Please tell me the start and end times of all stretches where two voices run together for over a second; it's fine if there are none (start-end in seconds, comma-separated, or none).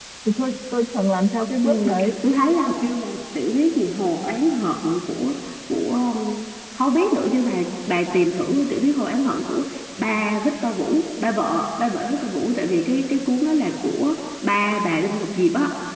none